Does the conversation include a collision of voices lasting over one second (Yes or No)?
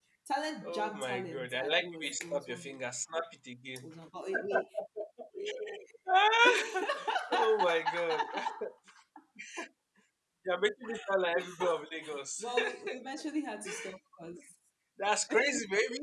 Yes